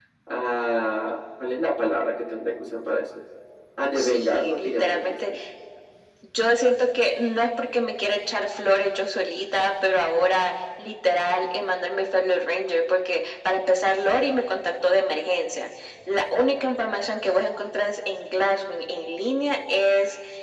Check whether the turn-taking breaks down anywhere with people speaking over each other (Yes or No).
Yes